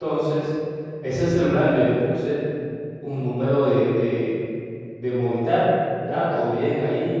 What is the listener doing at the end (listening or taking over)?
listening